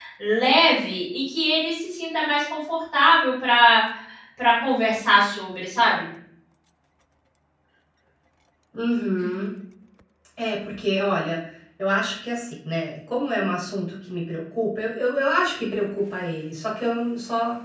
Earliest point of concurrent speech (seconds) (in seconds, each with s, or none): none